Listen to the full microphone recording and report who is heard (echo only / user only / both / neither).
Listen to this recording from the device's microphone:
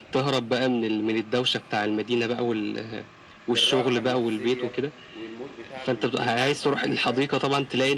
both